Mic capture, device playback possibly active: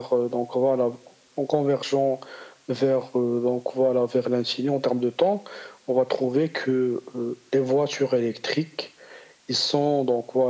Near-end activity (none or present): none